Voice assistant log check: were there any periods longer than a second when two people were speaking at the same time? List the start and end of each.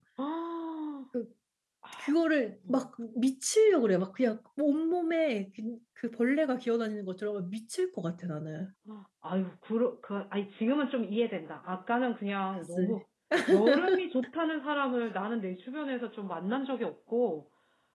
none

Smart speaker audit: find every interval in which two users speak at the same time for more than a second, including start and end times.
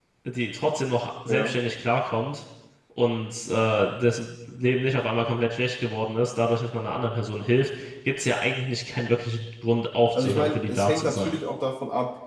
10.1-11.4

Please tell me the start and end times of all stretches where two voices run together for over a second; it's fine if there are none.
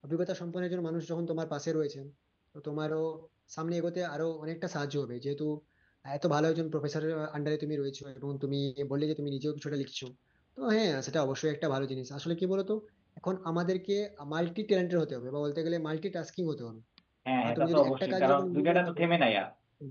17.4-19.0

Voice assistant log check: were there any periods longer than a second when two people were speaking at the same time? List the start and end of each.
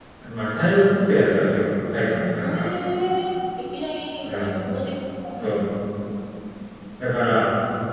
none

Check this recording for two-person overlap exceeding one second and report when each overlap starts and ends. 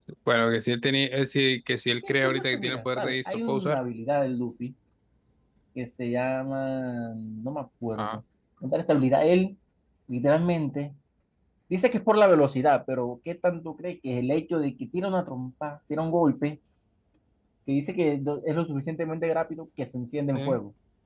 2.1-3.8

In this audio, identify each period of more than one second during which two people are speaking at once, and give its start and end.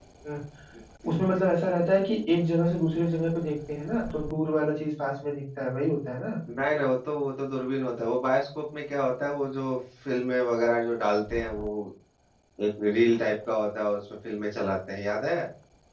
none

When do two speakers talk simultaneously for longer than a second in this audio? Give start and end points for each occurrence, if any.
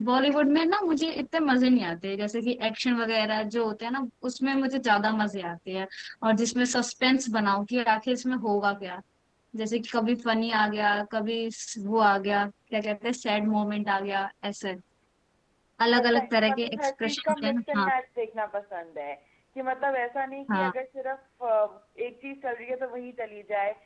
16.0-17.9

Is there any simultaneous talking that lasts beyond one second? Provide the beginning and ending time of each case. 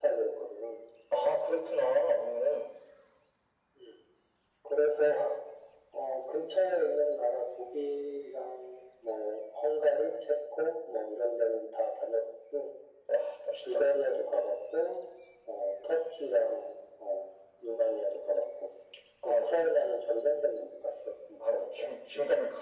none

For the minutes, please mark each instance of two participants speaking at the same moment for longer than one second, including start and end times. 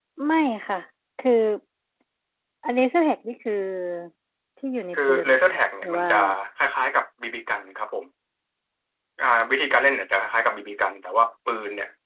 4.9-6.2

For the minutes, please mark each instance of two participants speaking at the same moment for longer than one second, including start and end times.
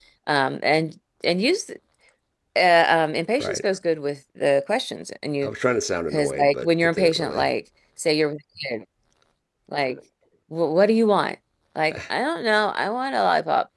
6.1-7.5

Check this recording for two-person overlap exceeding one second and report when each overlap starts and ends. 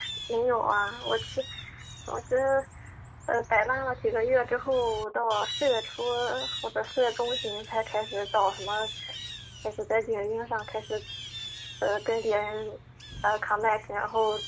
none

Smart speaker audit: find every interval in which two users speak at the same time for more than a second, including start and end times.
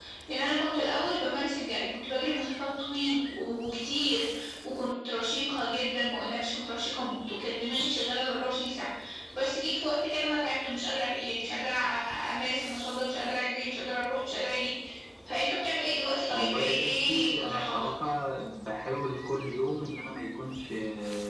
16.3-17.9

